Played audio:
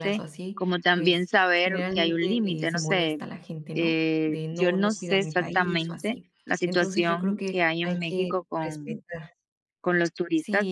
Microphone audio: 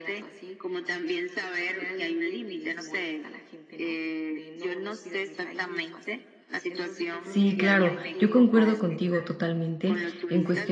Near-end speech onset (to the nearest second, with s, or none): 7 s